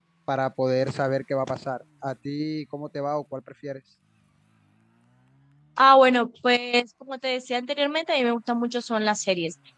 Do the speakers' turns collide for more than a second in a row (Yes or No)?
No